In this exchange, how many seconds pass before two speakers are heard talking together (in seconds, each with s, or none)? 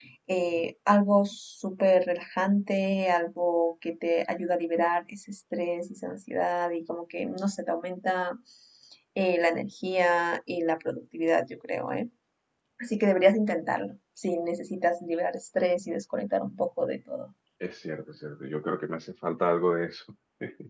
none